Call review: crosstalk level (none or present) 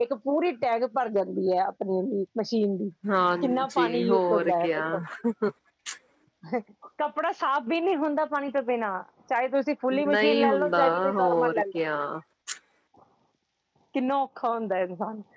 present